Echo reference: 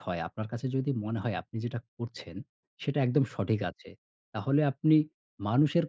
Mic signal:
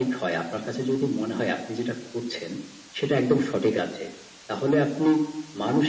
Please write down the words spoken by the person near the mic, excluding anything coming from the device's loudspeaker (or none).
none